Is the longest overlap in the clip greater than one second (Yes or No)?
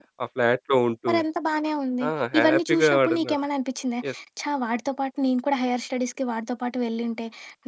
Yes